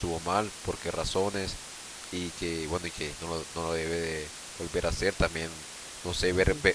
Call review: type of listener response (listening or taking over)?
listening